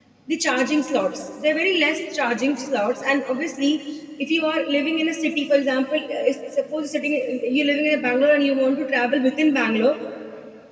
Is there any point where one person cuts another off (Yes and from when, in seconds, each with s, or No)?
No